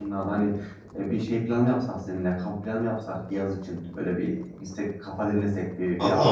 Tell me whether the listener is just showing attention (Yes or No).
No